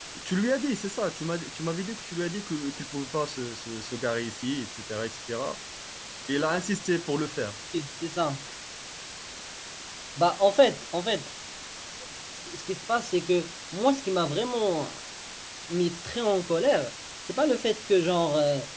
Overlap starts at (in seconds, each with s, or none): none